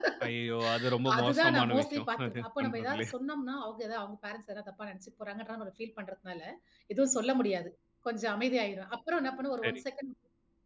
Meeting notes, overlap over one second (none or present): present